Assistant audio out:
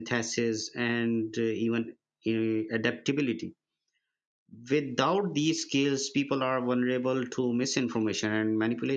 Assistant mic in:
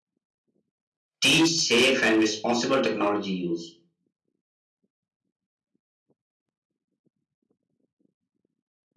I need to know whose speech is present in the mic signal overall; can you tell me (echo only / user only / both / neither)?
user only